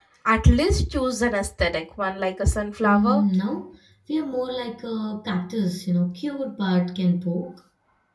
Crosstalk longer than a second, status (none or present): none